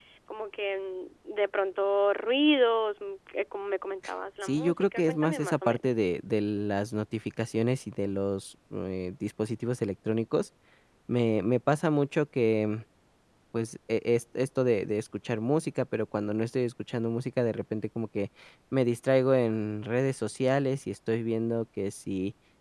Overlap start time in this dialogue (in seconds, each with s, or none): 4.4 s